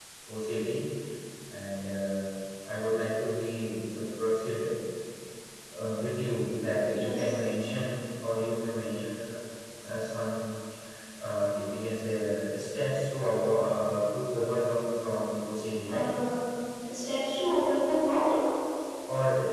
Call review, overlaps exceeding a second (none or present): none